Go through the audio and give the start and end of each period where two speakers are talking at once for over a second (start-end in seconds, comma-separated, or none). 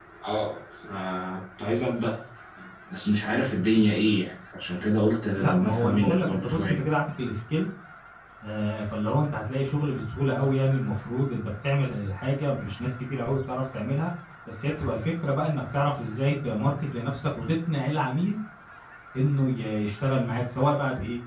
5.4-6.8